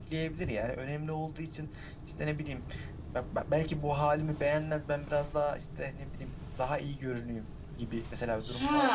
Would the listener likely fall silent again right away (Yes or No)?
No